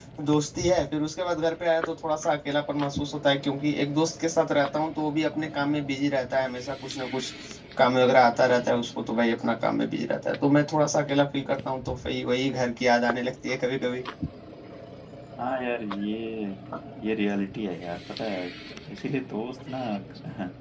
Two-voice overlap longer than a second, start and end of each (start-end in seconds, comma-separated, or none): none